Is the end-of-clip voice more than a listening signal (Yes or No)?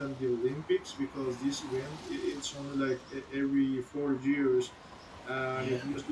No